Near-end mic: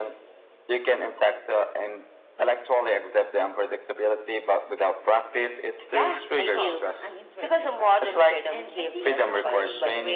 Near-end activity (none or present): present